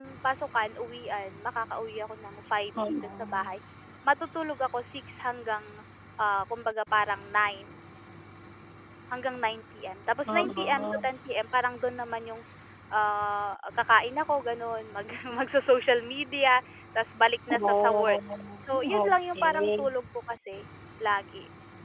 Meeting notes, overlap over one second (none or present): present